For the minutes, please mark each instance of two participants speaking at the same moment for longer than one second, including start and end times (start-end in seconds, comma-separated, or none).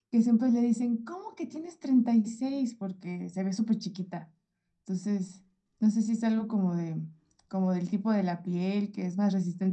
none